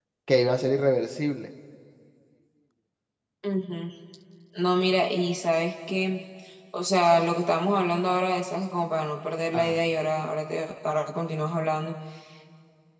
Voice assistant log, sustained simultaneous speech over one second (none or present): none